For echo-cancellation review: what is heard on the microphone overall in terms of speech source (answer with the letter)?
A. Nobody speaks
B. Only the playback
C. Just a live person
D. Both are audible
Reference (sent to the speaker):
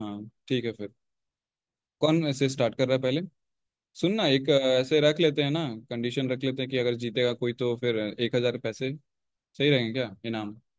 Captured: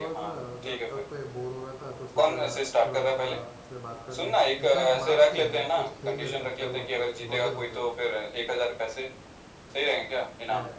D